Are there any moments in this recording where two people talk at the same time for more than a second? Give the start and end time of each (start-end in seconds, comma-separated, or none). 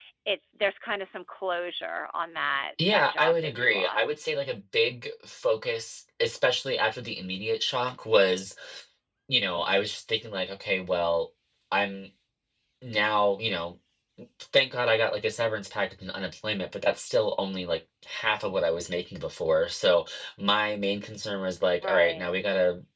2.9-4.1